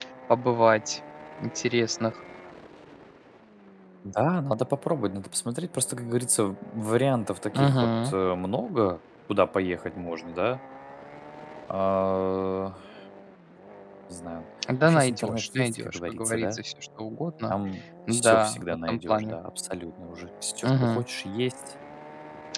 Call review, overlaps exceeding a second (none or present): present